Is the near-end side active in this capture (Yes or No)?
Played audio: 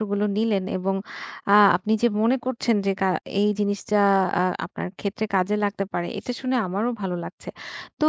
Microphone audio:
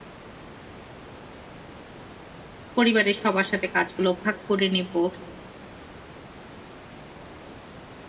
Yes